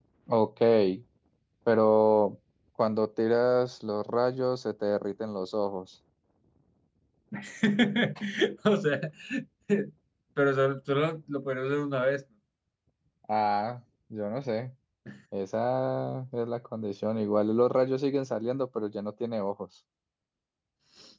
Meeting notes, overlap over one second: none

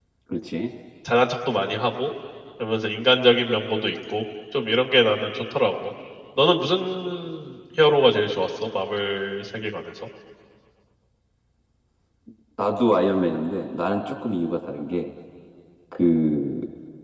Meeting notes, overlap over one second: none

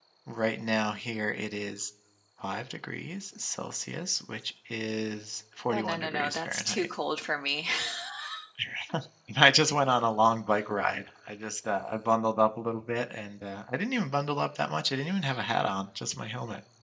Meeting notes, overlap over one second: present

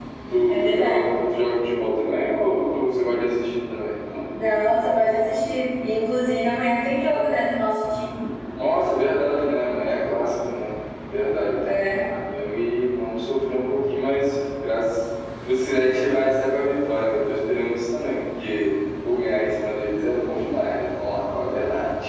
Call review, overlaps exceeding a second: none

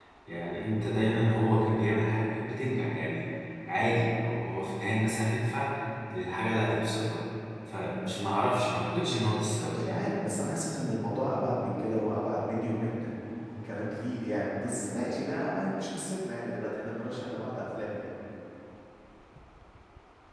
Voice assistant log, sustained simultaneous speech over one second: none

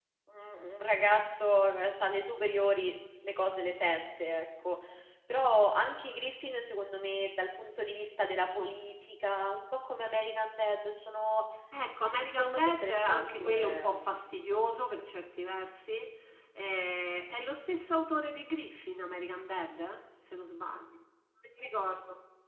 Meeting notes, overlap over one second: present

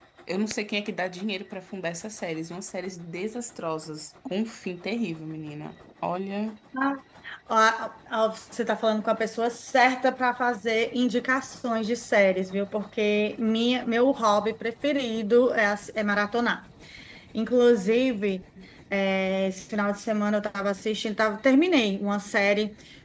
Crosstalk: none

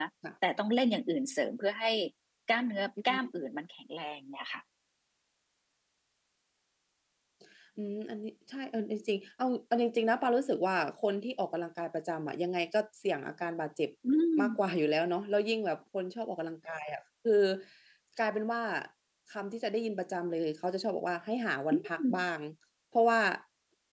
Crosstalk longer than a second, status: none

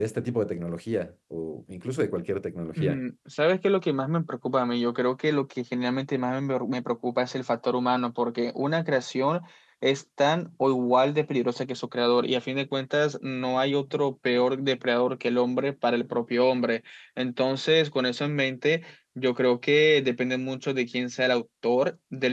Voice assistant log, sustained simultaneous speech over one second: none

